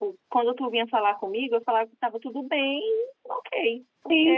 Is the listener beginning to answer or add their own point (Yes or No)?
Yes